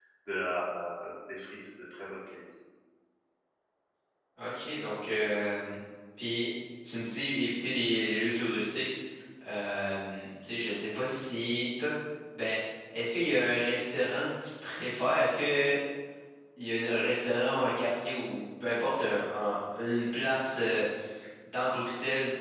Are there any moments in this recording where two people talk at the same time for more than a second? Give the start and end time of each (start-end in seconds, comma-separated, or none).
none